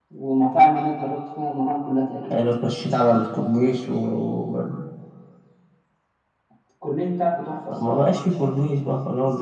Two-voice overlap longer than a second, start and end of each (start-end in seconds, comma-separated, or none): none